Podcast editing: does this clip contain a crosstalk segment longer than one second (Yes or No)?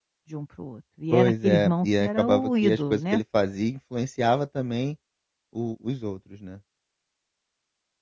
Yes